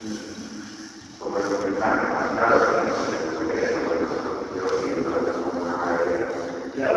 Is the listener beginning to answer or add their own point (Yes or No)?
Yes